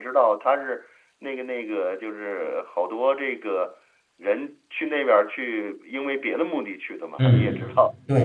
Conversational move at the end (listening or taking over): taking over